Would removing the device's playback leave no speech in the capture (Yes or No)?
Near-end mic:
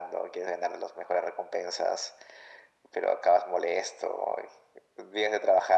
Yes